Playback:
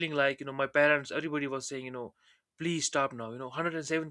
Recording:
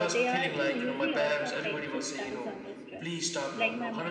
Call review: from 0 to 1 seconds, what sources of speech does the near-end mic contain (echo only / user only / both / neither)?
both